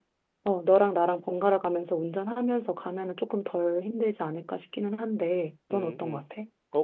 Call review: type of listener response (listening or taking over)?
taking over